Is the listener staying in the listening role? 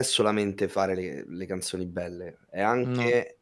Yes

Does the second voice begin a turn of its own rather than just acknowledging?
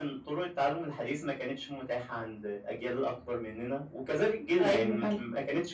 No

